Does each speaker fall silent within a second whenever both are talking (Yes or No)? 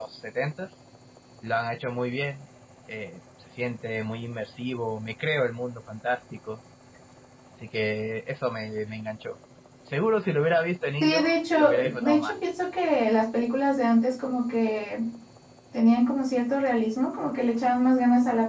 No